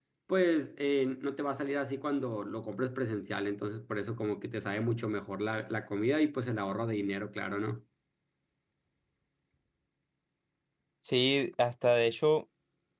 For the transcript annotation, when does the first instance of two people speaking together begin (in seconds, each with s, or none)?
none